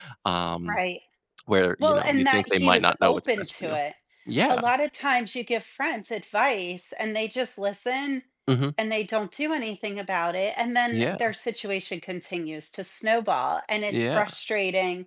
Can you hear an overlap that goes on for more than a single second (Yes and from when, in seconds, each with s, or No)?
Yes, from 1.8 s